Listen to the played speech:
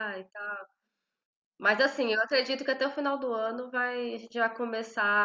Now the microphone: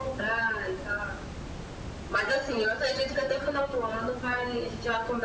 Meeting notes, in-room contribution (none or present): none